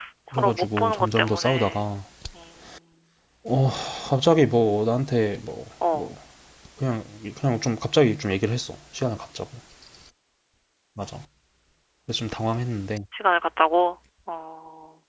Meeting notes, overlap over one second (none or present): present